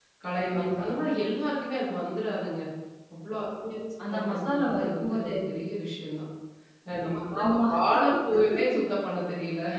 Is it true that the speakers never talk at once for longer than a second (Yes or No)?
No